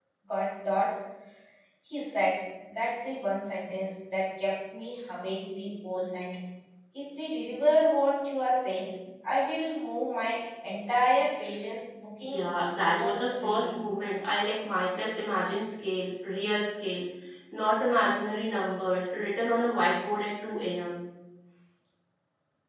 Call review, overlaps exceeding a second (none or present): present